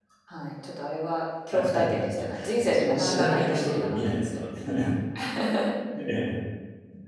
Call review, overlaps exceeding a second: present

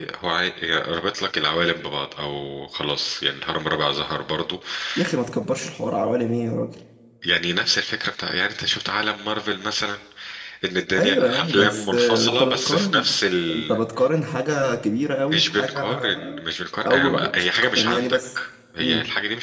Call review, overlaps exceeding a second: present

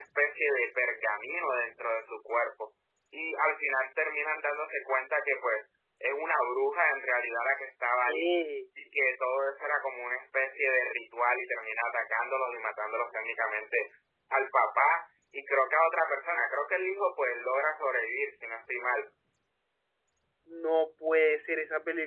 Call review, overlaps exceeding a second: none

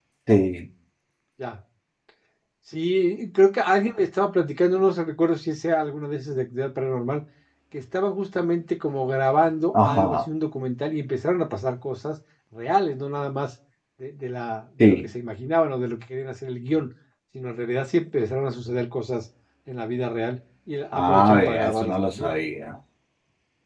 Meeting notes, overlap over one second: present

